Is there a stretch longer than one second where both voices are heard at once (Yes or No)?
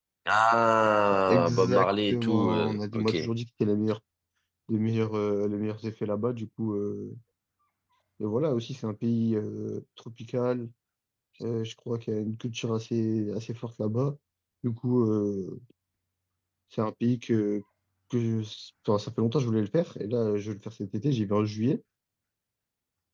Yes